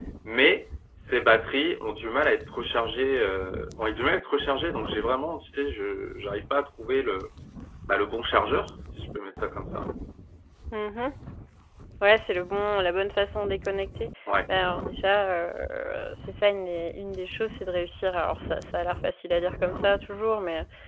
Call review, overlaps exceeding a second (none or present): none